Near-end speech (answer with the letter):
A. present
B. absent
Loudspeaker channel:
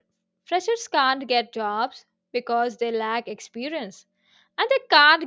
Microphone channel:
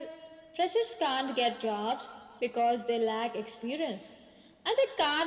B